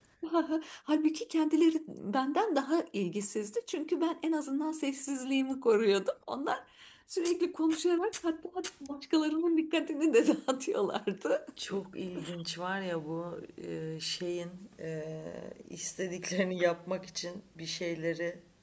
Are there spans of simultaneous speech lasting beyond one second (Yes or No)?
No